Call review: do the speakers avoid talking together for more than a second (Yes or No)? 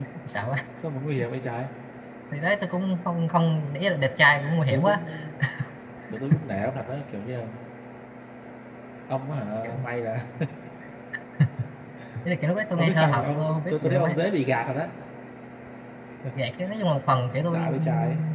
No